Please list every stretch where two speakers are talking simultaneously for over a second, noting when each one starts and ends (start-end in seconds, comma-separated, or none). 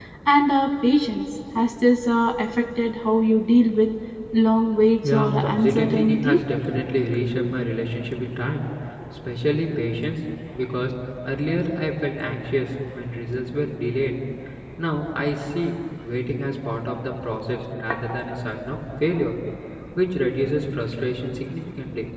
5.0-6.4